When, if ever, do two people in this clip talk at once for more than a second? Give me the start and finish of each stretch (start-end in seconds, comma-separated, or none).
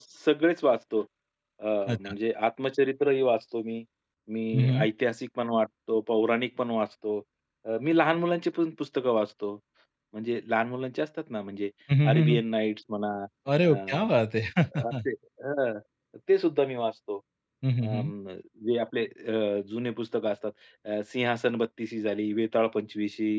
none